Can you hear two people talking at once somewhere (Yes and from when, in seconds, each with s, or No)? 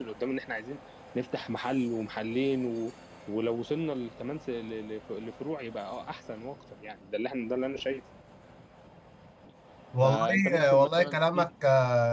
Yes, from 10.0 s